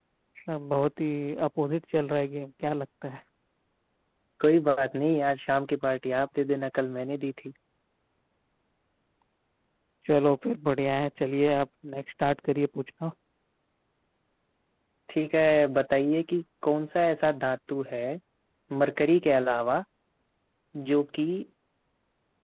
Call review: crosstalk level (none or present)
none